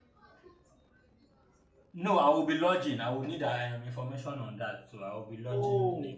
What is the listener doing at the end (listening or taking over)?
taking over